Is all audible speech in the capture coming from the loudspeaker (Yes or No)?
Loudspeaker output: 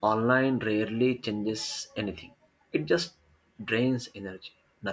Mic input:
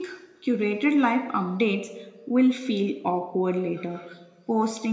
No